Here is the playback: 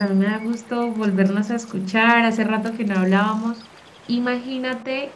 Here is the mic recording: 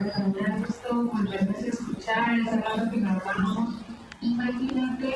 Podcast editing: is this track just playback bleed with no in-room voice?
Yes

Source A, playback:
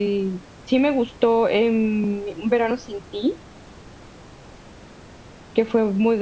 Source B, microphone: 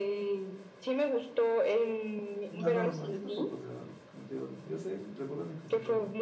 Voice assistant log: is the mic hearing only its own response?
No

